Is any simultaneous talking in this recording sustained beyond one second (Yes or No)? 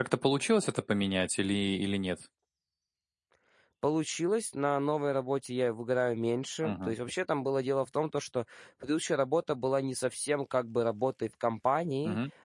No